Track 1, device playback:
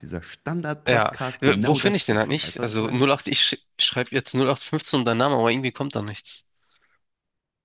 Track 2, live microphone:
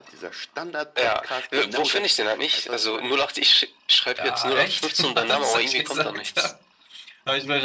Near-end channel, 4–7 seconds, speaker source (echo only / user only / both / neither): both